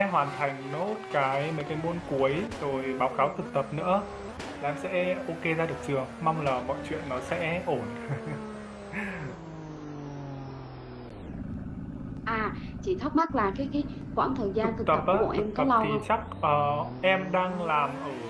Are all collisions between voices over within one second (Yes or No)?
No